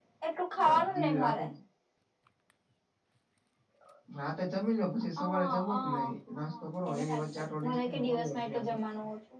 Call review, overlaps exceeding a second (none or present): present